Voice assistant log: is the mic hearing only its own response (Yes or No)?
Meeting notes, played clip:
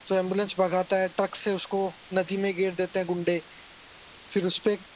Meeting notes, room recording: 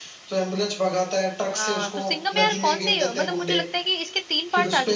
No